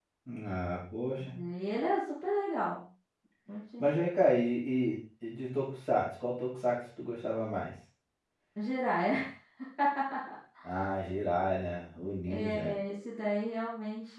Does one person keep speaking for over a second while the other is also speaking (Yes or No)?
No